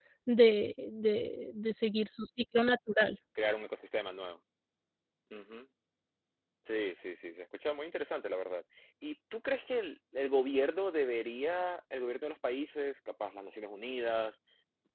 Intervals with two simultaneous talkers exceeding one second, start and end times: none

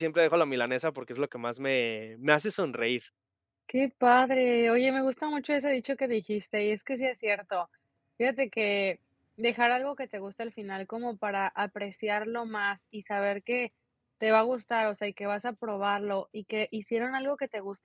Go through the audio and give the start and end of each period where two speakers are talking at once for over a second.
none

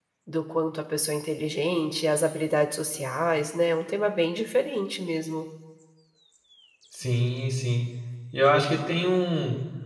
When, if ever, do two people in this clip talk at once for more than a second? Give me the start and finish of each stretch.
none

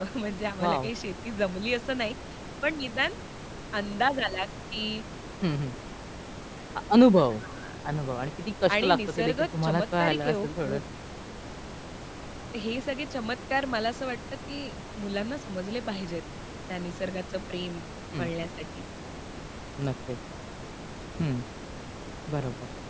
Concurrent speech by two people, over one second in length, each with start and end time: 8.8-10.8

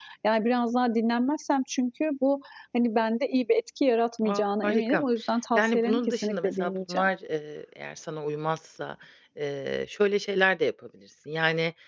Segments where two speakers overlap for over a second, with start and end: 5.6-7.1

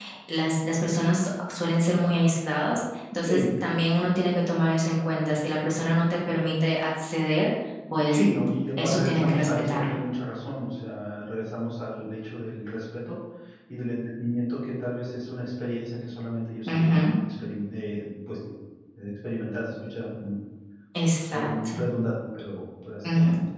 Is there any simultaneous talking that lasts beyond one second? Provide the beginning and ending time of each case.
8.8-10.0

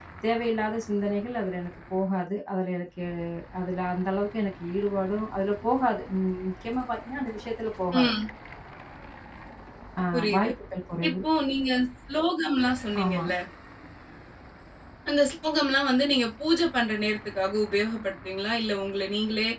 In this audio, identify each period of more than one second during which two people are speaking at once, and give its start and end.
none

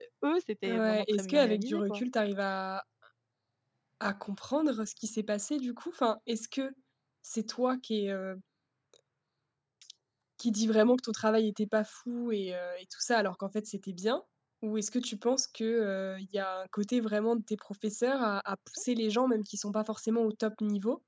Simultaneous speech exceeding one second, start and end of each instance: 0.7-2.0

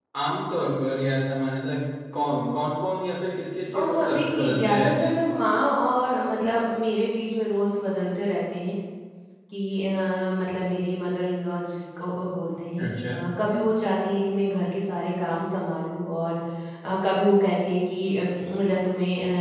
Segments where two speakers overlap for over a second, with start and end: 3.7-5.1

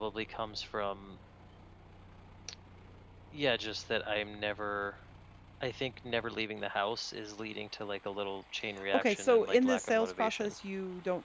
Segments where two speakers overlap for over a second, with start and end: 8.9-10.5

